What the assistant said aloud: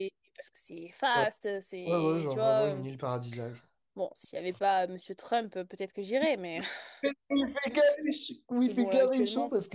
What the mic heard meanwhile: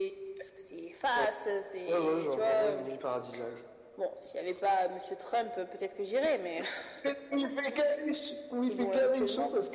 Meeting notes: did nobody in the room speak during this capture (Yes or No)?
Yes